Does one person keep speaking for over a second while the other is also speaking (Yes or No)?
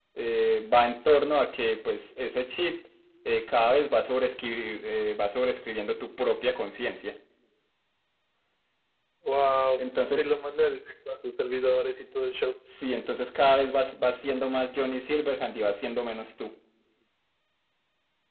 No